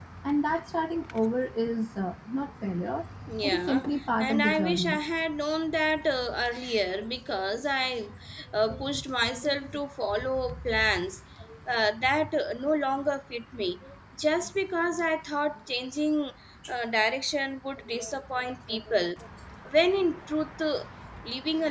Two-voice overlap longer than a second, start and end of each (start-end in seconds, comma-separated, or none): 3.4-5.0